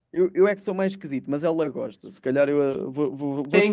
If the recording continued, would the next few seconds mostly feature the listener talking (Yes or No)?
Yes